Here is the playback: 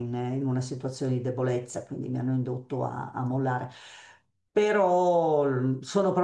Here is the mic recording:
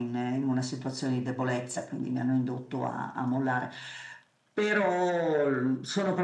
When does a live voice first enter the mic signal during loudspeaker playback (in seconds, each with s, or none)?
none